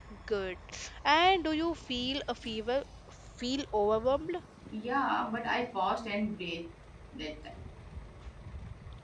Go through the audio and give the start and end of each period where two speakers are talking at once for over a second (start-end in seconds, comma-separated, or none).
none